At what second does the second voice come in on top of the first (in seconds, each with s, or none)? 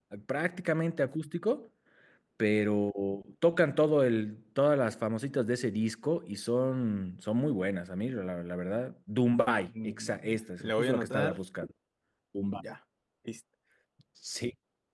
9.7 s